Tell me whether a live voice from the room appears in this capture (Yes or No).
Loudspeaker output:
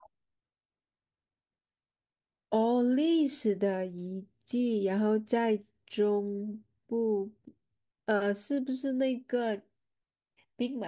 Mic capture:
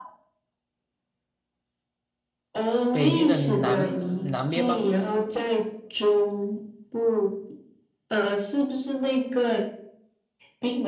Yes